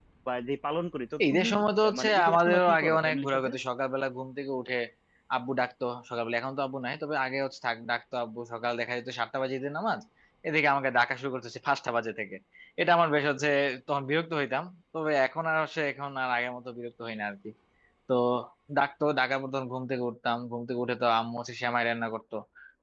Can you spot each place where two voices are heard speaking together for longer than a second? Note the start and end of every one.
1.8-3.5

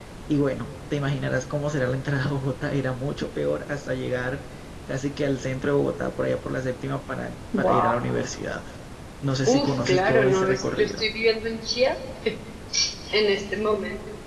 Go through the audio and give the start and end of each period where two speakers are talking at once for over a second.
9.5-11.0

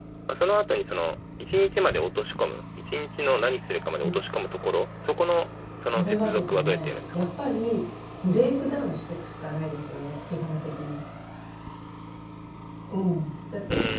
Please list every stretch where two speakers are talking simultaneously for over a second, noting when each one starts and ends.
5.8-7.2

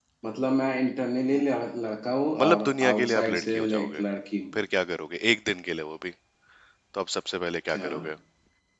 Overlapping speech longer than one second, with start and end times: 2.4-4.0

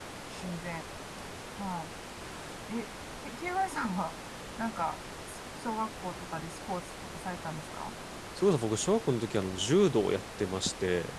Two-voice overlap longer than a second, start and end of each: none

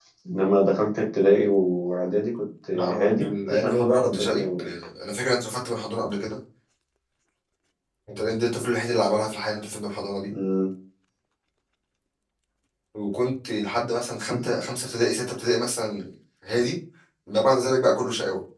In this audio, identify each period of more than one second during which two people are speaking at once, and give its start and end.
2.7-4.7

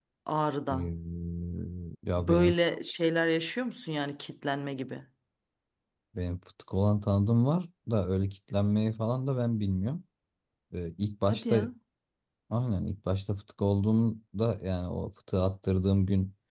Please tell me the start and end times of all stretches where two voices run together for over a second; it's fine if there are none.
none

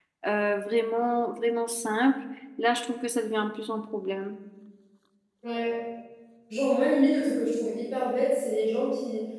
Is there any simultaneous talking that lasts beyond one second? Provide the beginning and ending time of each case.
none

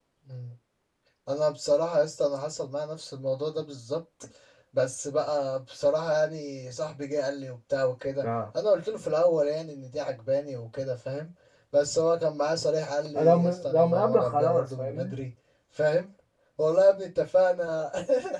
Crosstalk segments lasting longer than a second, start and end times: 13.2-15.1

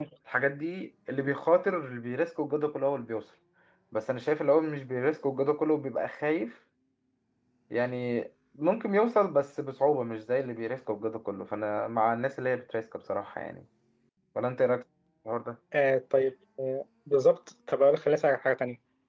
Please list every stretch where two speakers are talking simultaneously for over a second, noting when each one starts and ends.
none

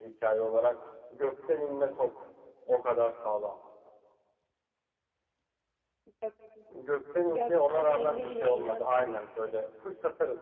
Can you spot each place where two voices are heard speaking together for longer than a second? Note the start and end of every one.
7.3-9.1

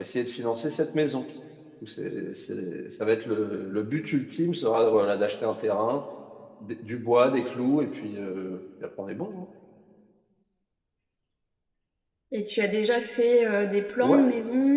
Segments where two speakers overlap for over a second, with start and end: none

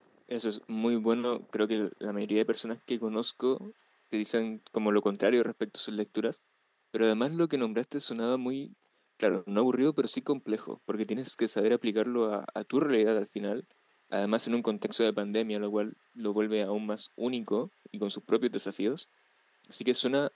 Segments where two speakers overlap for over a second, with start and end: none

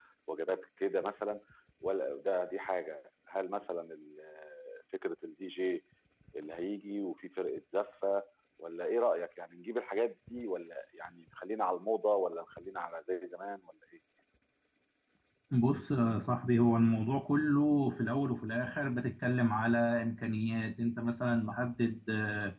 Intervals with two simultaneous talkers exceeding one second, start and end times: none

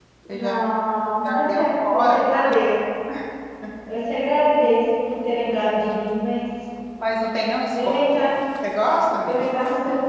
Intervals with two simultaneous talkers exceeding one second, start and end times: 1.2-2.5

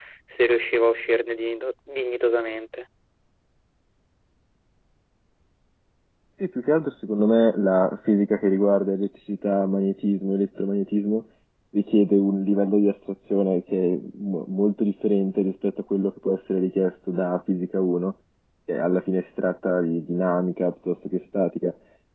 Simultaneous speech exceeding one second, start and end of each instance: none

